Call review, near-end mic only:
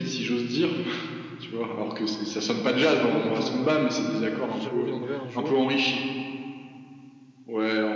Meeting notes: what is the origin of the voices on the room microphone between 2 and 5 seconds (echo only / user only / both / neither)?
both